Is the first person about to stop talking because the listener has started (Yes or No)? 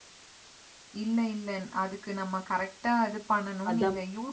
No